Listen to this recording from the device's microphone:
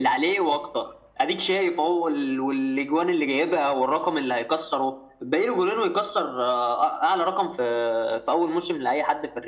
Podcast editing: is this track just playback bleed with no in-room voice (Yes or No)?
Yes